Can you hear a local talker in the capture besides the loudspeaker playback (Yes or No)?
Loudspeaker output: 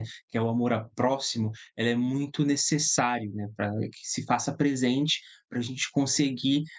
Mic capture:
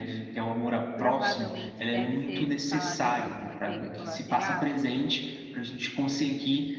Yes